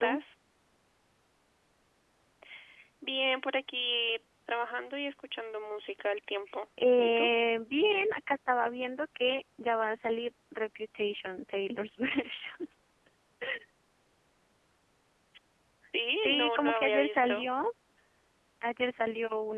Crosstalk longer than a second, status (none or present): present